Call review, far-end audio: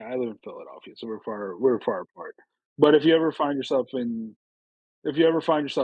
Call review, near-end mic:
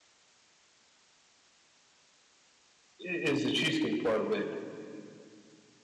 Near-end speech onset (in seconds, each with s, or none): 3.0 s